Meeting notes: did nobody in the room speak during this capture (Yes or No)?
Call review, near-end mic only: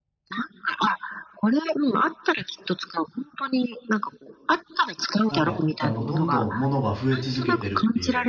No